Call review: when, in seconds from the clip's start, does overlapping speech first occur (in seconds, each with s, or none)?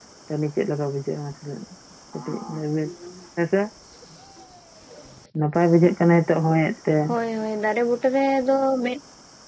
none